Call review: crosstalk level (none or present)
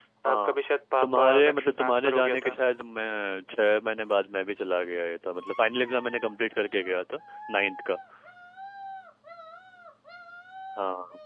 present